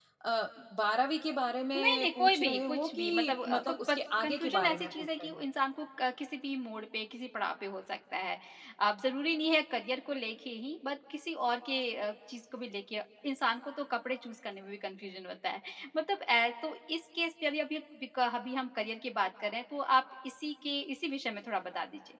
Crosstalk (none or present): present